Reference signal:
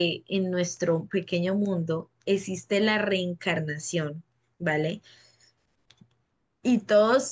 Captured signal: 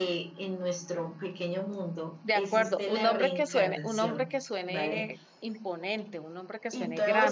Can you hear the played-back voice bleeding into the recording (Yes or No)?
Yes